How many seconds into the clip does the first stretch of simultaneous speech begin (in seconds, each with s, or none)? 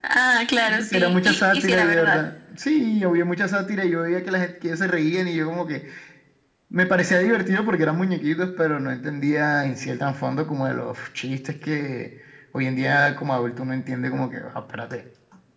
0.7 s